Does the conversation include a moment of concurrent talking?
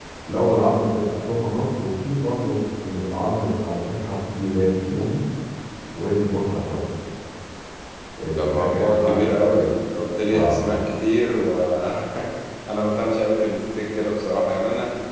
Yes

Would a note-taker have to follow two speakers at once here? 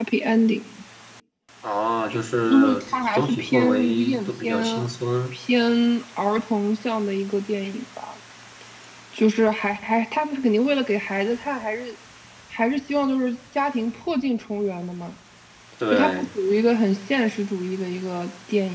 Yes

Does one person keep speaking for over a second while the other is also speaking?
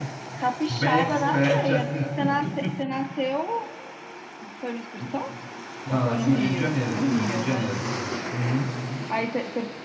Yes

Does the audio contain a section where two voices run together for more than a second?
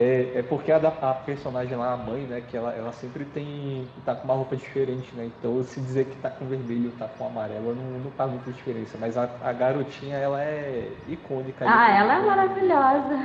Yes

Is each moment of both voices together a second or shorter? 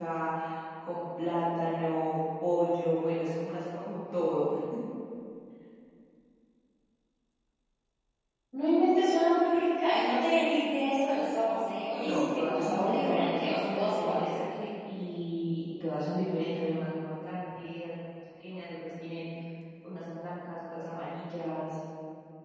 No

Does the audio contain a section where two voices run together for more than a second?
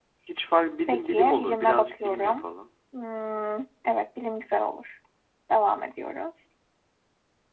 Yes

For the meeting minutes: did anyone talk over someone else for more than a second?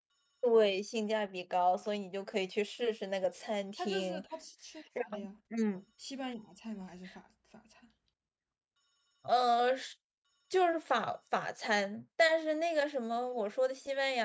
No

